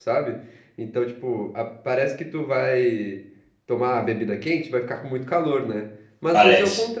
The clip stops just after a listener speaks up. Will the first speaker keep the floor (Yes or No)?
Yes